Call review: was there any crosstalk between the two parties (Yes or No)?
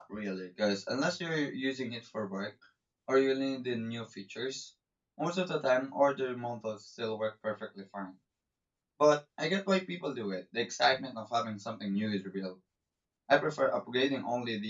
No